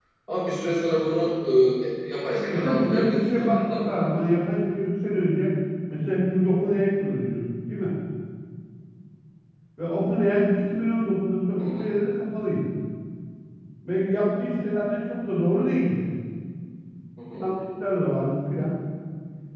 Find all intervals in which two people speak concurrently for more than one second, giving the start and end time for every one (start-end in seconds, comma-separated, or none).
2.5-3.9